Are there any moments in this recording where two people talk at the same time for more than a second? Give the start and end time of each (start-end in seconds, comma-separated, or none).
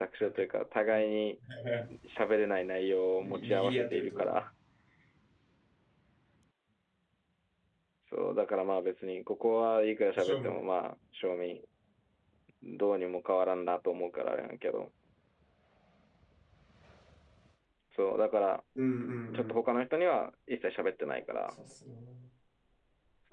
3.2-4.4